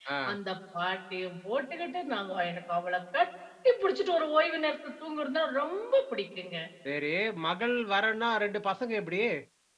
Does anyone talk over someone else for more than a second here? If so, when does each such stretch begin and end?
none

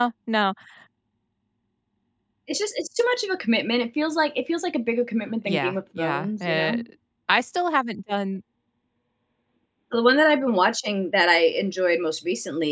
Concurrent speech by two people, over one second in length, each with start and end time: 5.4-6.8

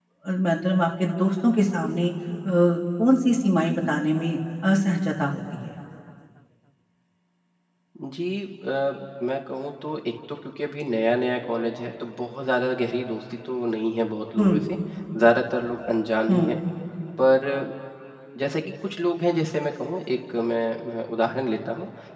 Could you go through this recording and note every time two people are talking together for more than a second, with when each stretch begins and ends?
none

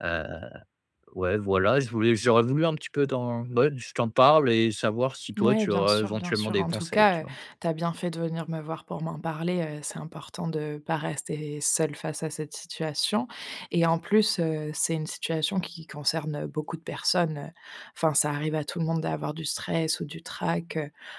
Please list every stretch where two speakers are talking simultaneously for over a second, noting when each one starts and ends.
5.4-7.2

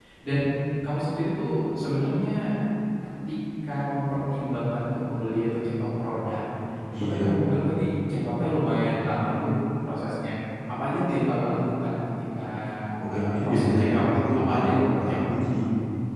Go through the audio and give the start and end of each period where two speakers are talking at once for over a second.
13.0-15.0

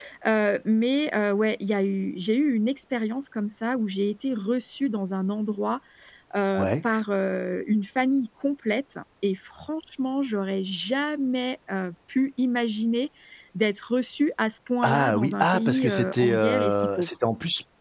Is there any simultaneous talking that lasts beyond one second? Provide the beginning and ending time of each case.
14.8-17.1

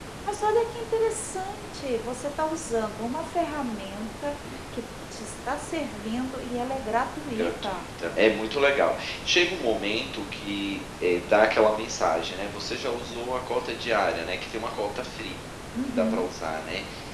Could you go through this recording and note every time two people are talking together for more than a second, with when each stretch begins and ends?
none

